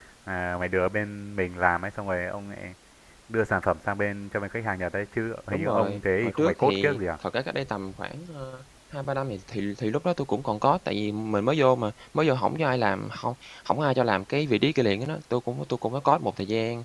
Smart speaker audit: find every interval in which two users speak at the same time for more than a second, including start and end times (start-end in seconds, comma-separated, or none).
5.5-7.0